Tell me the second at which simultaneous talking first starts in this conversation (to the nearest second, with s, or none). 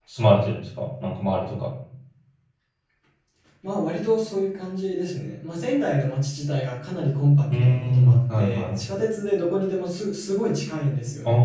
8 s